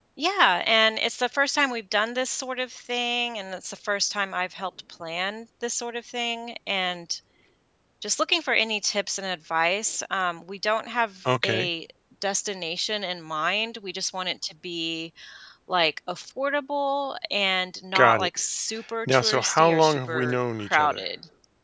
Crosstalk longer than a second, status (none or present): present